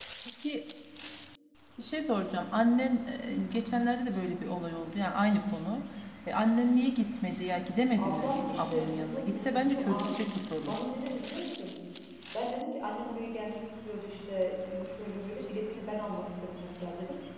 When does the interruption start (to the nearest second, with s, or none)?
8 s